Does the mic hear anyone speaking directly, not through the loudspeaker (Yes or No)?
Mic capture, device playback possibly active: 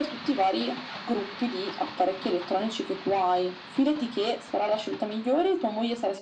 No